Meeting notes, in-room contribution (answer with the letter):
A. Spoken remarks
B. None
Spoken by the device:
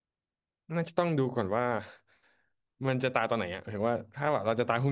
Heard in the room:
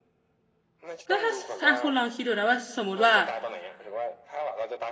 A